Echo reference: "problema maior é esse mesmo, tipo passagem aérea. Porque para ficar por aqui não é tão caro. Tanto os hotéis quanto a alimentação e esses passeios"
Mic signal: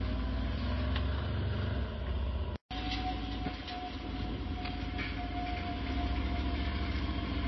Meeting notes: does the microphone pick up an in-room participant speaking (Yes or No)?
No